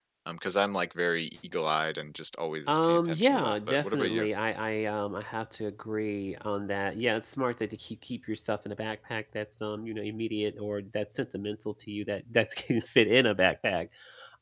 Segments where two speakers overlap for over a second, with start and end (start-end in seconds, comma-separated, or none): 2.7-4.3